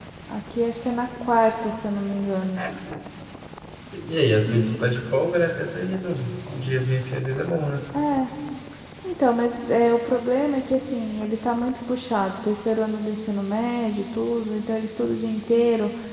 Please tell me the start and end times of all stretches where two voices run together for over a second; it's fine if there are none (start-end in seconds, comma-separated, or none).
none